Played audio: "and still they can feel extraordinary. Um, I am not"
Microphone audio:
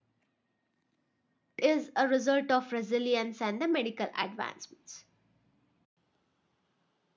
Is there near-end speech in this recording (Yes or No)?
Yes